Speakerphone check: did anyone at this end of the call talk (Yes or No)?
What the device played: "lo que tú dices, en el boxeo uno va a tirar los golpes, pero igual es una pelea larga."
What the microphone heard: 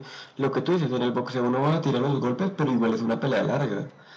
No